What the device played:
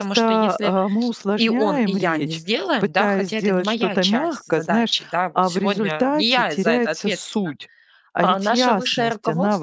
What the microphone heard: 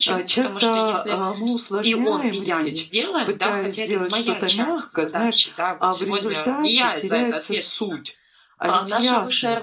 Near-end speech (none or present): none